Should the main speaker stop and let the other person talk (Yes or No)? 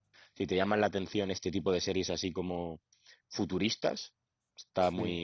No